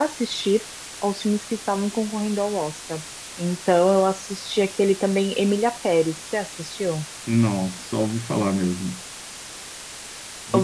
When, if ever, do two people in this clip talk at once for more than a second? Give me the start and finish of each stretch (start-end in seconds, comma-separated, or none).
none